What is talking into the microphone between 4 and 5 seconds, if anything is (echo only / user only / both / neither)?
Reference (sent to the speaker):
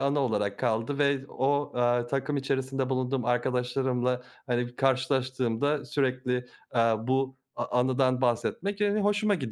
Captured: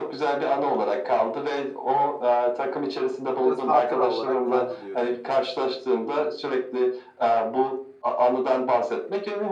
both